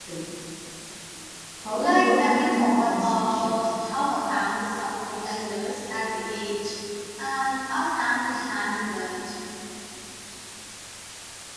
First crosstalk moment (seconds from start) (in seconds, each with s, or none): 1.8 s